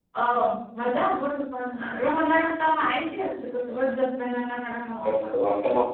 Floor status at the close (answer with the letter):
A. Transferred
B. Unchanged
A